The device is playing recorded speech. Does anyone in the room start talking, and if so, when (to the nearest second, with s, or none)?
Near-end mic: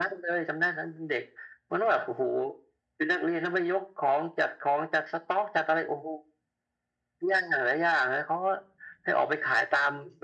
none